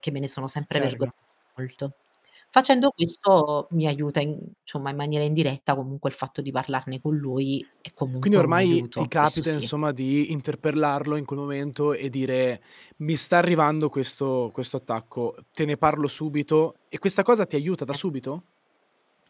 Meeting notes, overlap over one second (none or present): present